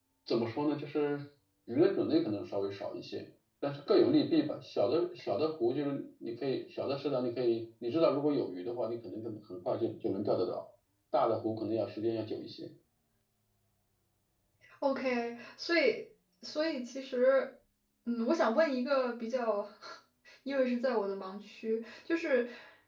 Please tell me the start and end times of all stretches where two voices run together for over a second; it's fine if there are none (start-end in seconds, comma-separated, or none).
none